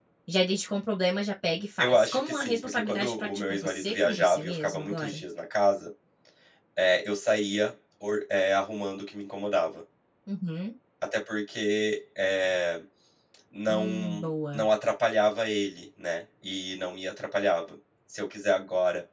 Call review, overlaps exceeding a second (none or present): present